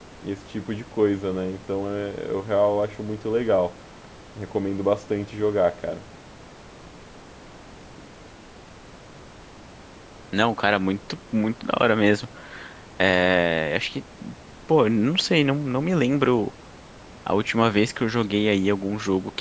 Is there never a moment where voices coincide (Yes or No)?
Yes